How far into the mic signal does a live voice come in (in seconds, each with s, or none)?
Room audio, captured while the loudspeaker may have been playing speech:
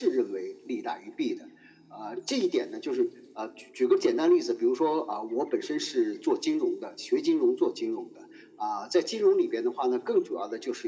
none